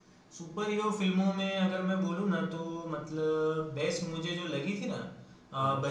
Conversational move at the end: listening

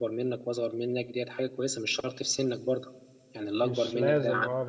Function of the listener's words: taking over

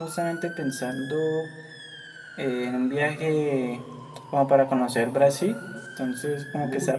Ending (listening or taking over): listening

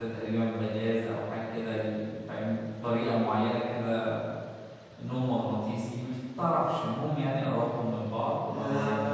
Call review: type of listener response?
taking over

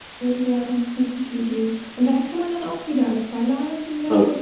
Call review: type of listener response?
listening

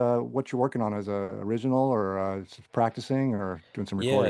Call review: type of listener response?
taking over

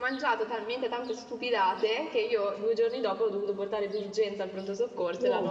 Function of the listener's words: listening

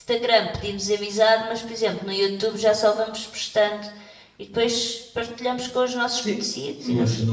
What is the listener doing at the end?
taking over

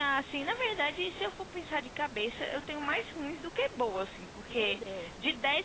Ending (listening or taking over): listening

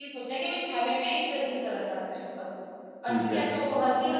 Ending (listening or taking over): listening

